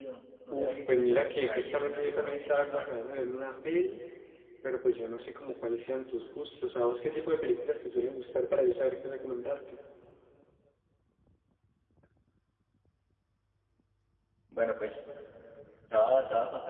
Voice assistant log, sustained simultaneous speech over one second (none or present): present